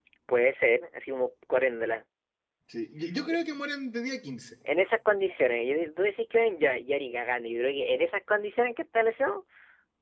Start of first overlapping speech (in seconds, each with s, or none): none